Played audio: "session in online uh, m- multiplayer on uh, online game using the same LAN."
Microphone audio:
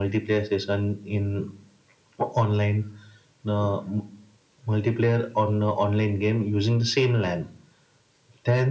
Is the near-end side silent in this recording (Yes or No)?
Yes